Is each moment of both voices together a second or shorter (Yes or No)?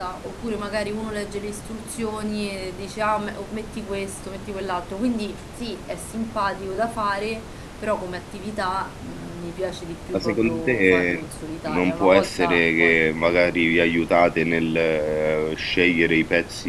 No